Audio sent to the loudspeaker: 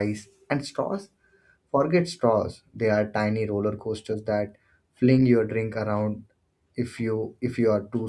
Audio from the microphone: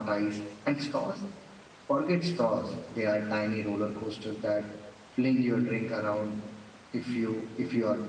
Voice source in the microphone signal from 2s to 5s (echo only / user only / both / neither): echo only